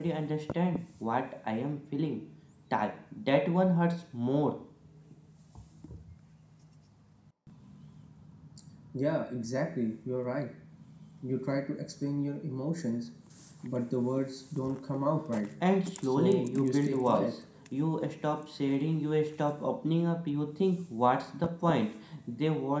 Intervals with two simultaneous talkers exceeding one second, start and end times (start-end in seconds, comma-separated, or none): 16.0-17.3